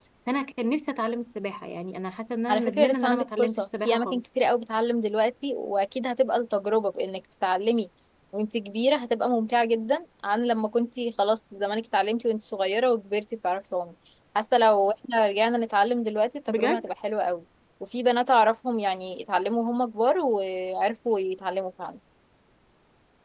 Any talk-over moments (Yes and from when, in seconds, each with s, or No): Yes, from 2.5 s